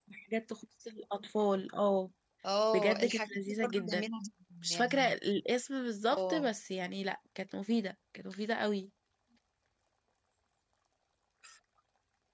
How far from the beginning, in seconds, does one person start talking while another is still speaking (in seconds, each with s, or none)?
2.7 s